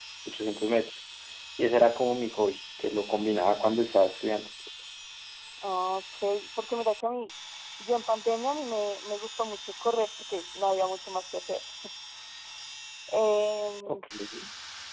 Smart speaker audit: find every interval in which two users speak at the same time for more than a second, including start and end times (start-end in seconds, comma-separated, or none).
none